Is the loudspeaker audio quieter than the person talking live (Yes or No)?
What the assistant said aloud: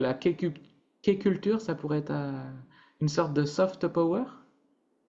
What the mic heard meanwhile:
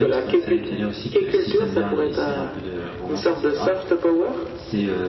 No